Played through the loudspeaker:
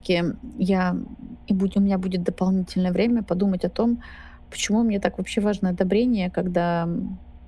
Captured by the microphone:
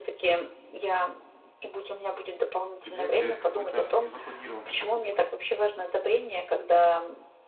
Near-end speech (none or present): present